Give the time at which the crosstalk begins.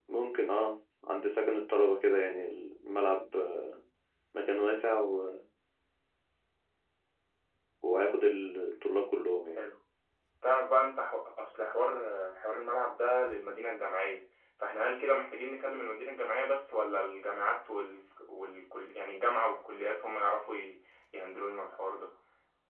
none

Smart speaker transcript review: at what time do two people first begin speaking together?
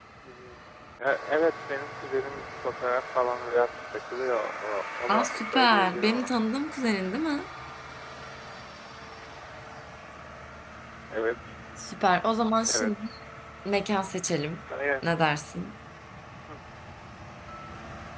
5.1 s

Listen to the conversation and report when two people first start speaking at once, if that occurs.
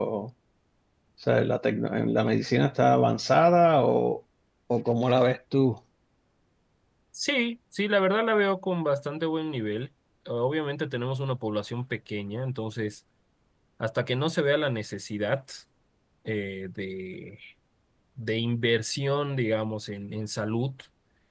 none

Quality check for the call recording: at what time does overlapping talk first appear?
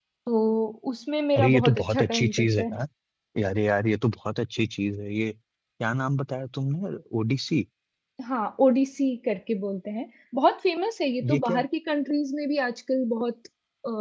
1.4 s

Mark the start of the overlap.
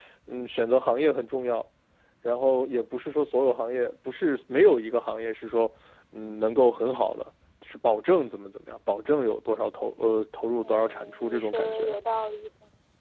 10.6 s

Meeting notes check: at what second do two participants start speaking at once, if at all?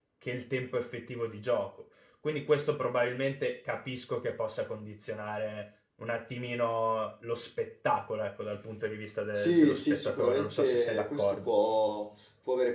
9.3 s

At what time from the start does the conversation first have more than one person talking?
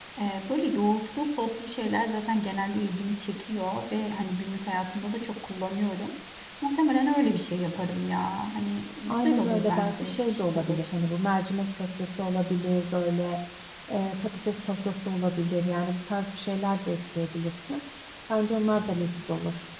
9.1 s

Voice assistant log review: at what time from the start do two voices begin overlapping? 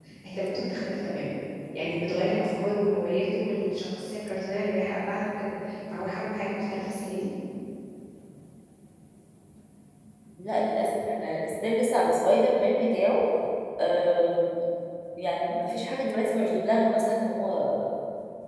none

